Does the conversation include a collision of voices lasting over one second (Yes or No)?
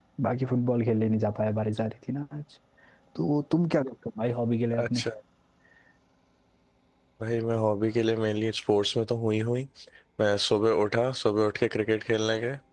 No